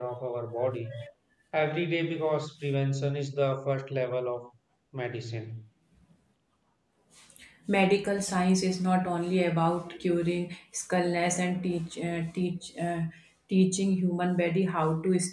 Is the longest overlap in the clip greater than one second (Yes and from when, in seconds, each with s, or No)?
No